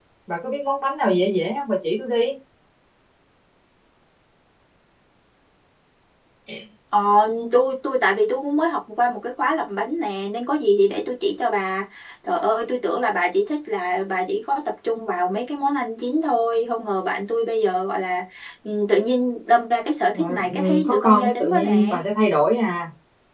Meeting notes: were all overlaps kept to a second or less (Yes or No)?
No